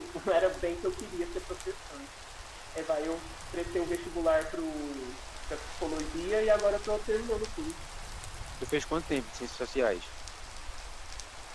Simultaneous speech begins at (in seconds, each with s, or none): none